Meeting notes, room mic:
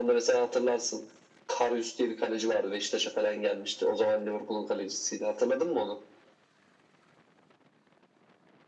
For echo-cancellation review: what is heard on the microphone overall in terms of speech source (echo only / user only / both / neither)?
echo only